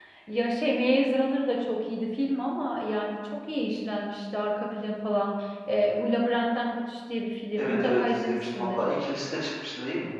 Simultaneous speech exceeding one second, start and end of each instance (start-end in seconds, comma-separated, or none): 7.6-8.8